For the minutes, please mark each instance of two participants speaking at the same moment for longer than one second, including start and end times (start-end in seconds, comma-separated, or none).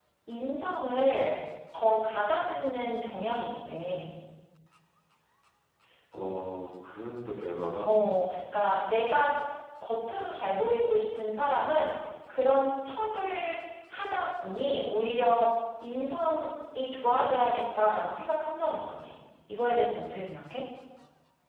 none